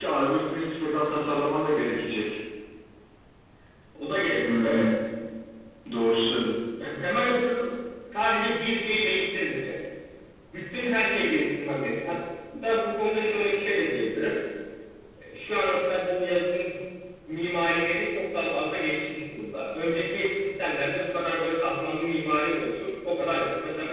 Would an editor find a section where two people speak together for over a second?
No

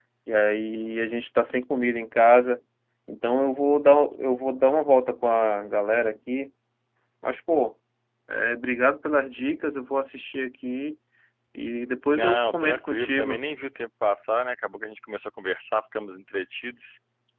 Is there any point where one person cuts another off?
Yes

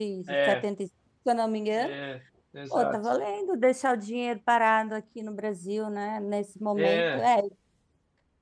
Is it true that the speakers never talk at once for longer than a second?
Yes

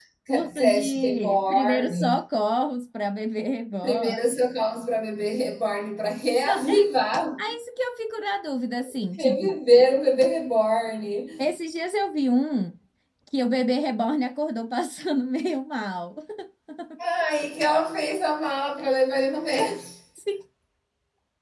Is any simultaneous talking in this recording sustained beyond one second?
Yes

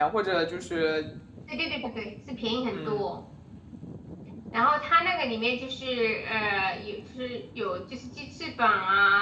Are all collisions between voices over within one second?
Yes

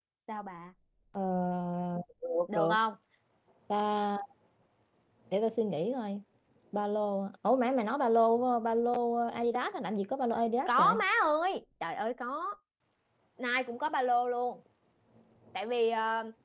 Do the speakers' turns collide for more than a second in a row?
No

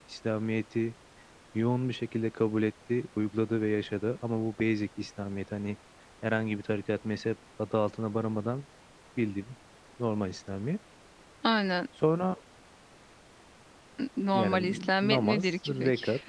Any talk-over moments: Yes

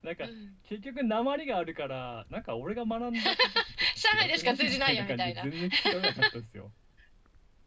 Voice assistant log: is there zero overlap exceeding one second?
No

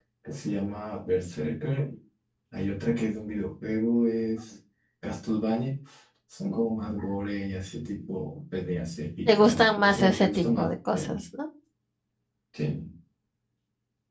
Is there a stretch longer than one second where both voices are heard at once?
Yes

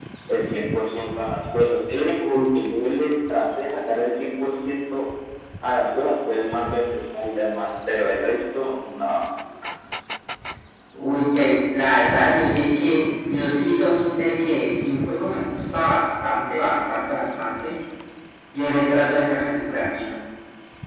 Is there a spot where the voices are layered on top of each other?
No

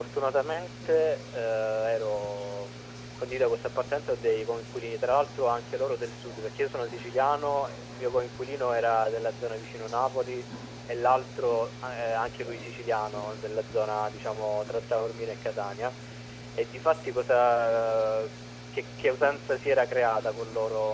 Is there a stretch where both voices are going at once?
No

